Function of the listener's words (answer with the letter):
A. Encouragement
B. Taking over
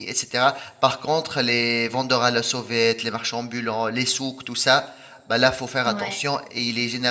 A